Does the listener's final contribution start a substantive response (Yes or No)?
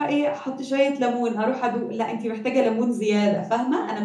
Yes